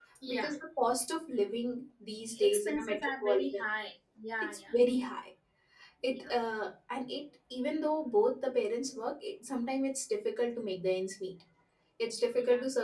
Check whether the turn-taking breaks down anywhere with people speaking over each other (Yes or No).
Yes